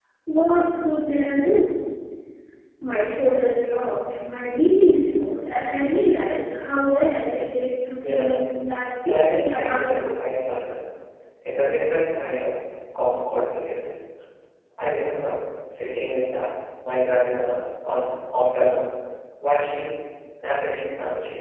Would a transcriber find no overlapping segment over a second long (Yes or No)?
No